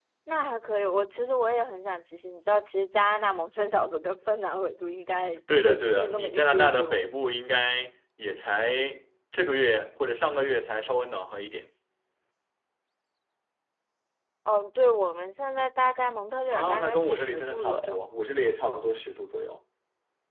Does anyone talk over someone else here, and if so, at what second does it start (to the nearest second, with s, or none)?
6 s